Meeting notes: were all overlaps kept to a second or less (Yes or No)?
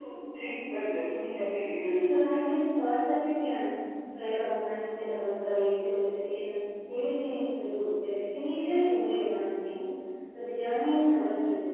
Yes